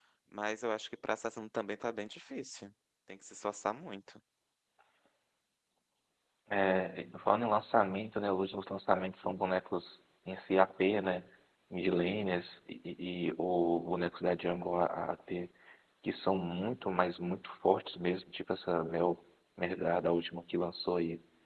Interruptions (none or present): none